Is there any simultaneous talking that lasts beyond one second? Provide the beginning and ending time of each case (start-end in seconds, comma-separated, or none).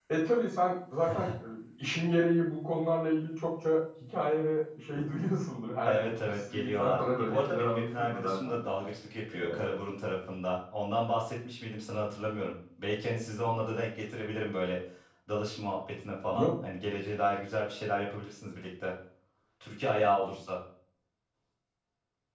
5.8-8.5